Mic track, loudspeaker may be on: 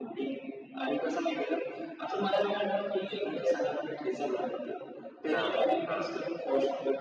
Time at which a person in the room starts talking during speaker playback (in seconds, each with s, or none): 5.3 s